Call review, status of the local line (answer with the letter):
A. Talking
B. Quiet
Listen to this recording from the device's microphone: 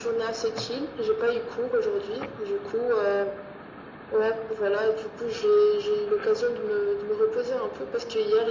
B